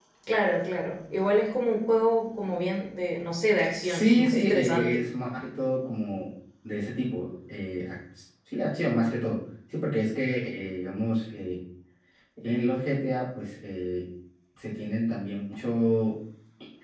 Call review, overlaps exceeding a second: present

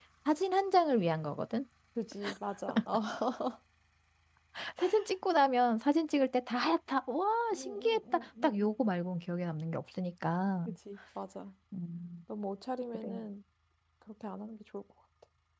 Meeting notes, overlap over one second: present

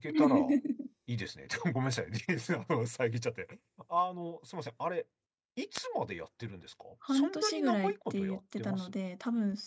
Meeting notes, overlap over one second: present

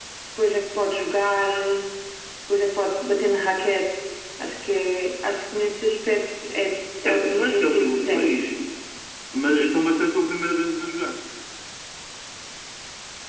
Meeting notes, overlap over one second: present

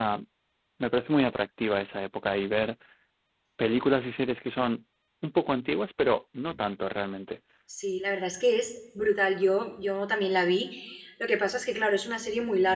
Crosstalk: none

